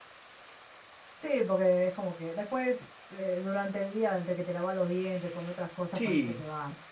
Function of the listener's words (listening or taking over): taking over